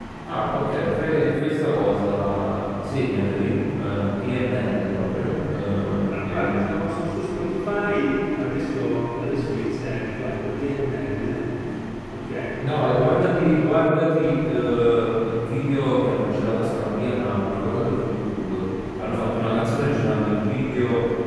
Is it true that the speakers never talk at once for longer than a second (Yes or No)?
Yes